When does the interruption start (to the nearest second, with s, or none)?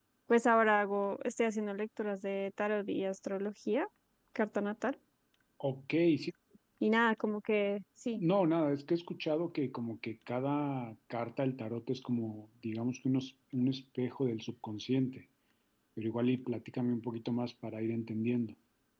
none